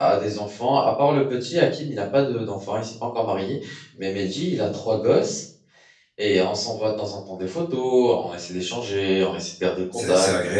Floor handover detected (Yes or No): Yes